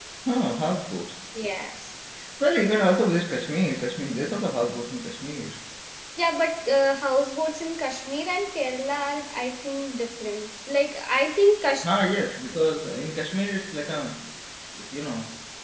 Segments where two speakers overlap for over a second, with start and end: none

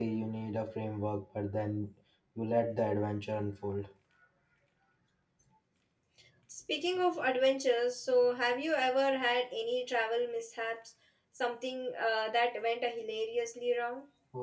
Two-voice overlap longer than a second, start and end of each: none

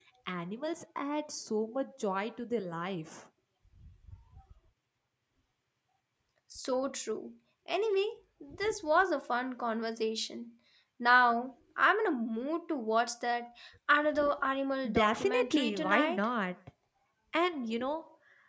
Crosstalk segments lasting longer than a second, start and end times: 14.9-16.2

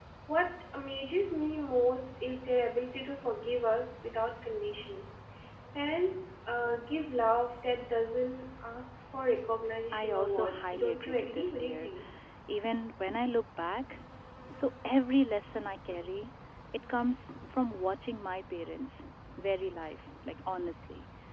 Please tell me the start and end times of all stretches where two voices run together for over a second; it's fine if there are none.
9.9-11.9

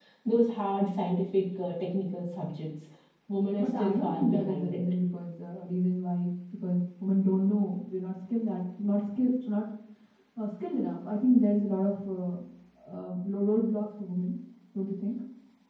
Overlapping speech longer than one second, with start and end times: 3.6-4.8

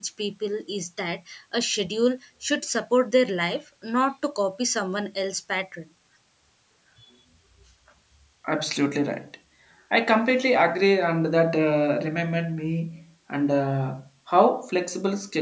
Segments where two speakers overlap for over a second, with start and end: none

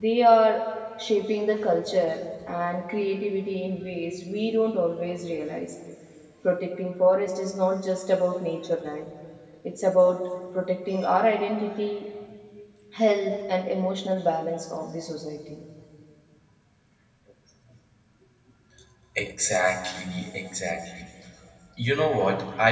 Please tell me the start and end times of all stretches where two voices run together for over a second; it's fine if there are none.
none

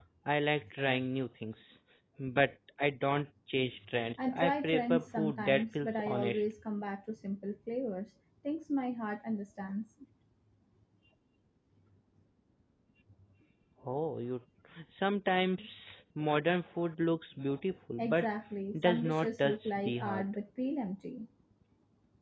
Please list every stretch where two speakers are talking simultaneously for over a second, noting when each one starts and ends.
4.3-6.4, 18.8-20.2

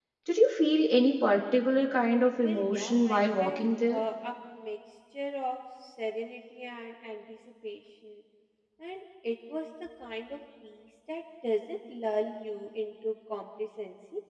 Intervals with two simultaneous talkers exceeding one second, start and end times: 2.4-4.0

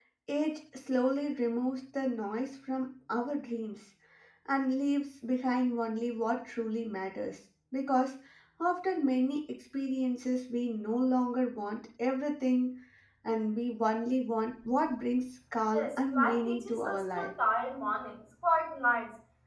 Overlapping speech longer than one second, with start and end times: 15.7-17.3

